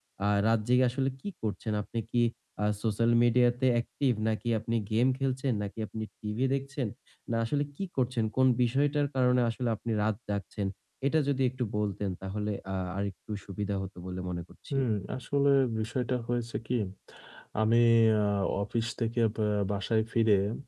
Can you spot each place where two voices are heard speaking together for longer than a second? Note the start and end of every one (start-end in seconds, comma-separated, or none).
none